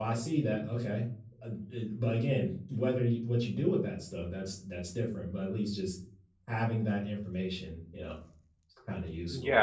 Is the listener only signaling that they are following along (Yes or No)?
No